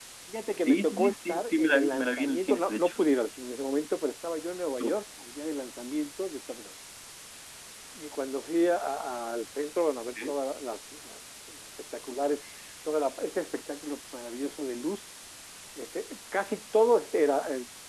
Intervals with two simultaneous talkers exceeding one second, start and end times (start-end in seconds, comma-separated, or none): 0.7-2.9